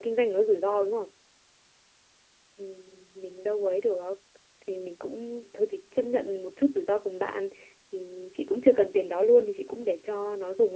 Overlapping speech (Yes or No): No